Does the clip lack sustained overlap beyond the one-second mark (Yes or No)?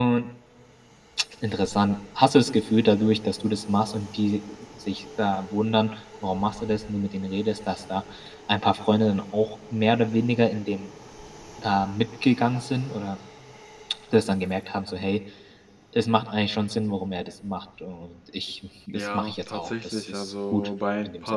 No